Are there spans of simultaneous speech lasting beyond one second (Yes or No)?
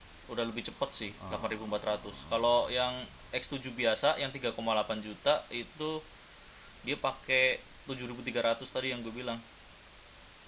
Yes